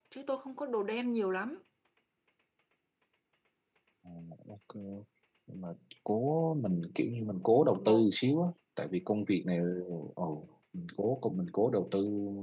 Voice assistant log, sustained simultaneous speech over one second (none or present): none